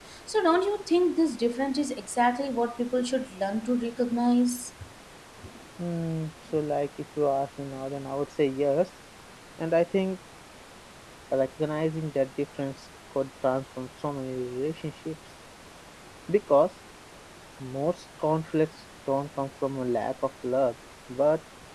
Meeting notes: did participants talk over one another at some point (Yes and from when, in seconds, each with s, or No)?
No